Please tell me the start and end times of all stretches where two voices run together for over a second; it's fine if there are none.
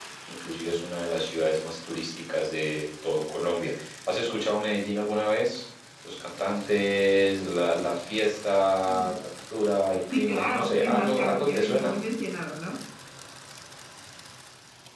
10.1-11.9

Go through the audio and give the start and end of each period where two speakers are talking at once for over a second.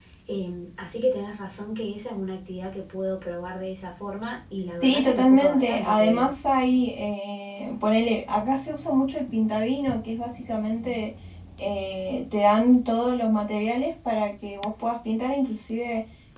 4.8-6.3

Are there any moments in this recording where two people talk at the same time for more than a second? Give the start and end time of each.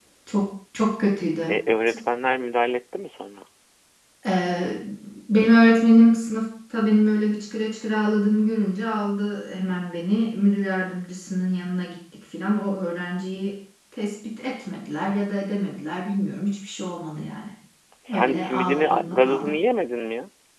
18.1-19.5

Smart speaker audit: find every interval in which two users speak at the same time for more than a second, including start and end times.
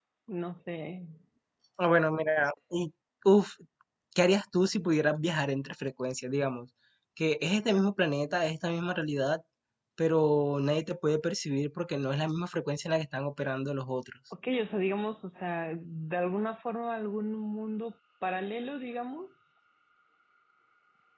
none

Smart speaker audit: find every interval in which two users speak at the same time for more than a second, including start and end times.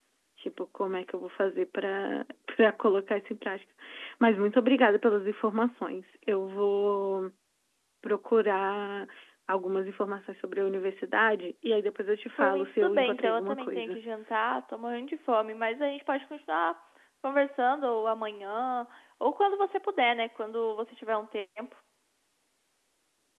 12.4-14.0

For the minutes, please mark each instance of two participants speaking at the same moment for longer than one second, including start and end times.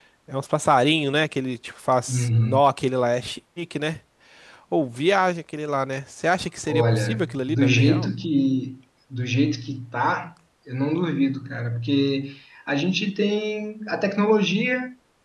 6.7-8.1

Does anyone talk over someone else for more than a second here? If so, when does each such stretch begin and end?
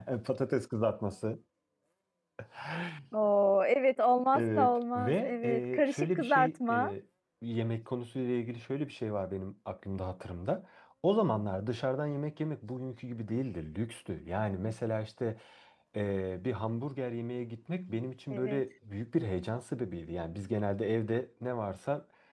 4.3-6.9

